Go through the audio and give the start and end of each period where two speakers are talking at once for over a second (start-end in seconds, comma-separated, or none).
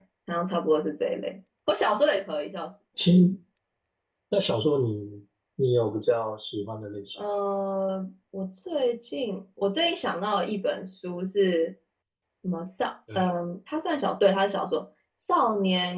none